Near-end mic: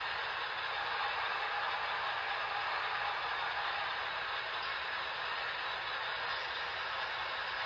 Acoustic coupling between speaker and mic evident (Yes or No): No